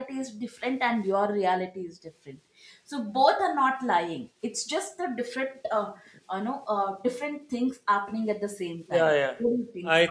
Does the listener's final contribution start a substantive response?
Yes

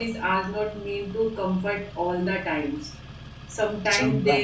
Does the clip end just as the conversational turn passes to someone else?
No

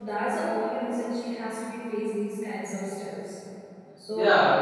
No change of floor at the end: No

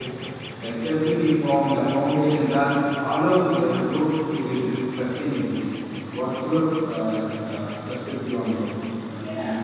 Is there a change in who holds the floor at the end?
Yes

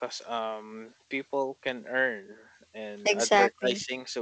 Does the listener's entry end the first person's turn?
No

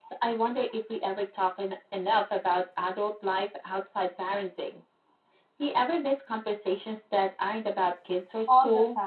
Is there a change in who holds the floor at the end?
Yes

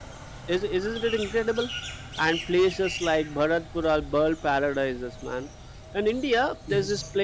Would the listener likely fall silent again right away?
Yes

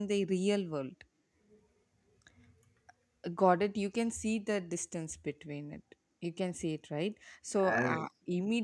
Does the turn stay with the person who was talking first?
Yes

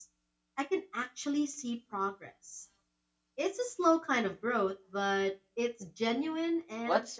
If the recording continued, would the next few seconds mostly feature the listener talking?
Yes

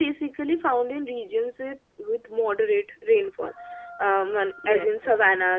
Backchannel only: Yes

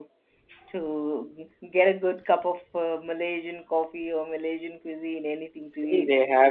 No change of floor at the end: No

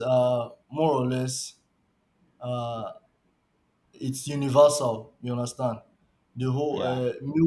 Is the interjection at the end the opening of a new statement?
No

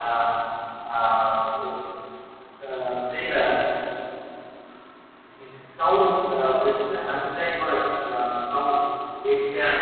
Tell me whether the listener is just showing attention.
Yes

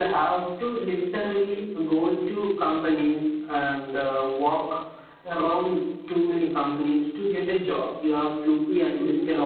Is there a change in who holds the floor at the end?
No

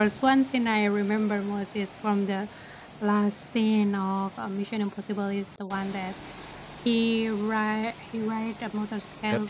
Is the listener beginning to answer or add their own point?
No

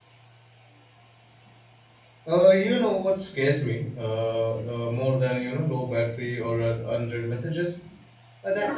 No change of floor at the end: Yes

